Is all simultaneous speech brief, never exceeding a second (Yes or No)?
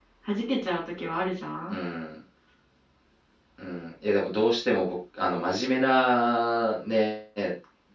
Yes